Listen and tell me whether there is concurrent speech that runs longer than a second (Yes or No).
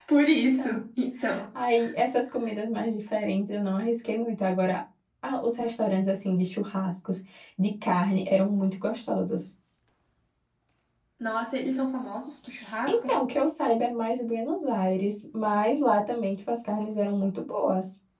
No